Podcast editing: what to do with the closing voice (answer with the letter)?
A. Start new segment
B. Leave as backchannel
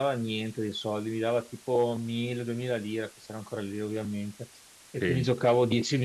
B